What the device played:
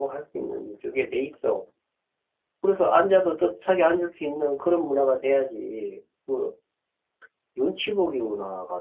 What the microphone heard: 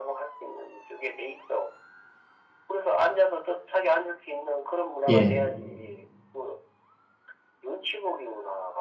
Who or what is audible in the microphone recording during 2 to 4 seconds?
echo only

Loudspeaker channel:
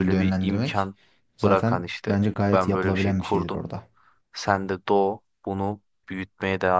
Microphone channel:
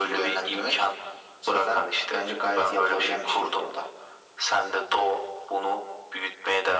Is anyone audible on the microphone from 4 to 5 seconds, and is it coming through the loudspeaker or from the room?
echo only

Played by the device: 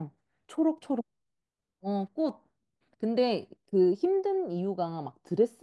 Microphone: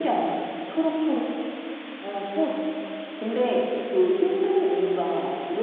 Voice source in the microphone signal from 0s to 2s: echo only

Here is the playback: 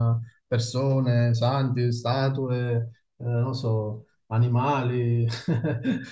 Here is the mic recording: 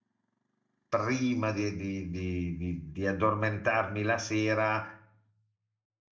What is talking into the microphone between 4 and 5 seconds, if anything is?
user only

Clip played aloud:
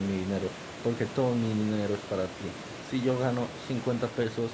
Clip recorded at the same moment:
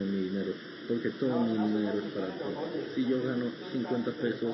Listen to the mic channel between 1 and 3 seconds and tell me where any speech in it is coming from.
both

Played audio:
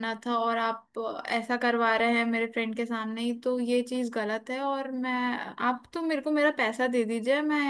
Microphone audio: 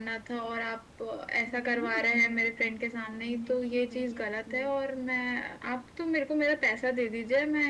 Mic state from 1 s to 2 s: both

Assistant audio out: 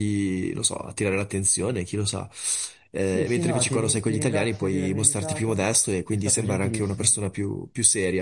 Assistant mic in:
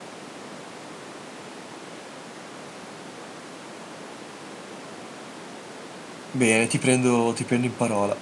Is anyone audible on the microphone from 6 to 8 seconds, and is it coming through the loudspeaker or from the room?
user only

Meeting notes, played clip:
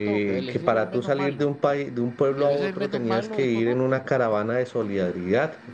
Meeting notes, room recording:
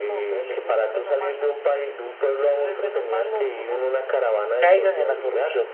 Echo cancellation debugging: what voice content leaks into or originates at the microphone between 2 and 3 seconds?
echo only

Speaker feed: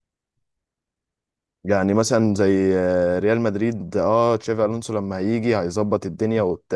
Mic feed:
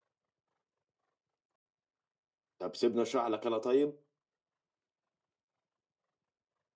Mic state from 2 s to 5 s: user only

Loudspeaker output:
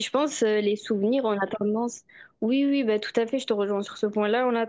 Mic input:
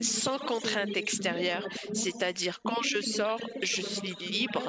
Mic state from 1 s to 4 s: both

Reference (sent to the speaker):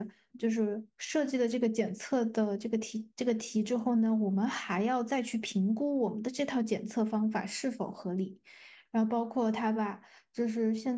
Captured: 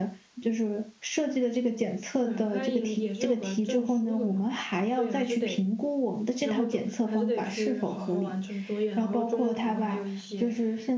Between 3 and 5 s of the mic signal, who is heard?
both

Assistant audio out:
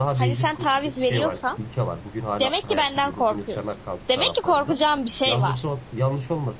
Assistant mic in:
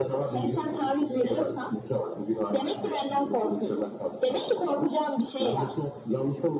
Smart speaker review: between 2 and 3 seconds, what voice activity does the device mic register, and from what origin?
echo only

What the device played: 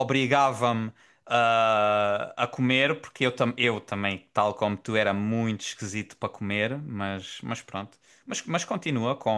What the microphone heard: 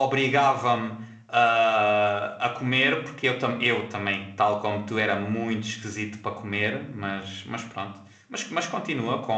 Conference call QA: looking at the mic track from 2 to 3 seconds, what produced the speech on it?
echo only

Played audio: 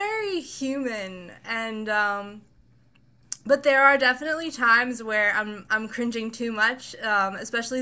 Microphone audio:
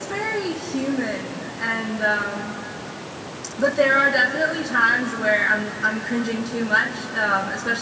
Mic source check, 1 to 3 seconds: echo only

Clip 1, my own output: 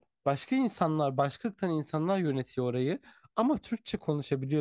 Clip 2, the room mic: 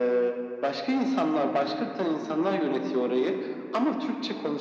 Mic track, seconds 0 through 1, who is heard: echo only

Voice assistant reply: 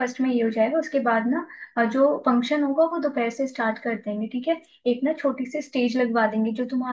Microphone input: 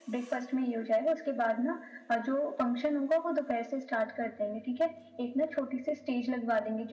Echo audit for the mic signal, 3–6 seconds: echo only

